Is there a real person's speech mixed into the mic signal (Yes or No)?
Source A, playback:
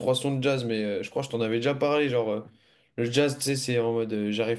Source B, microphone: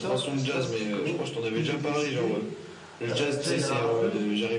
Yes